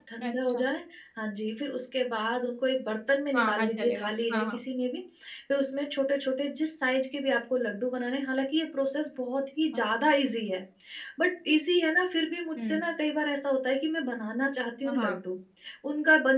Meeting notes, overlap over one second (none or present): present